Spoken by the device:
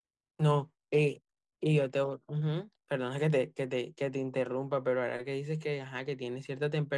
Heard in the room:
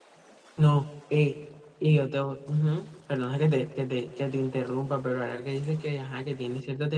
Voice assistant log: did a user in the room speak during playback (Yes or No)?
No